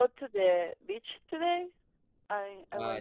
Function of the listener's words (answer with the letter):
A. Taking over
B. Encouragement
A